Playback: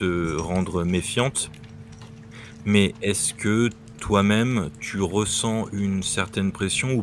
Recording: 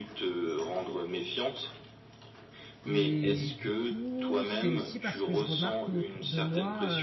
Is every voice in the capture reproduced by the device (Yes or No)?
No